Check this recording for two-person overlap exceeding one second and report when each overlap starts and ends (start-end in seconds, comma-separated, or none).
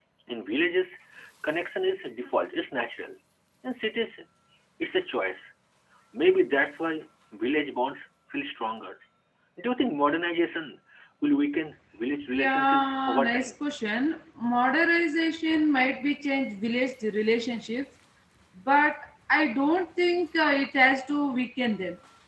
12.3-13.6